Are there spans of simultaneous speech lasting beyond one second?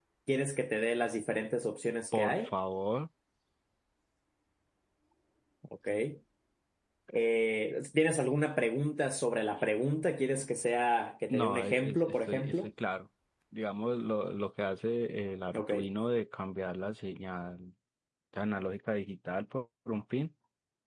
Yes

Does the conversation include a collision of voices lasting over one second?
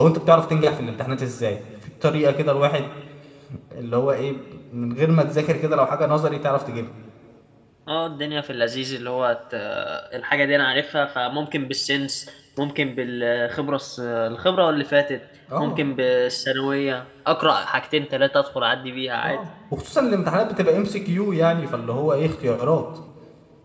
No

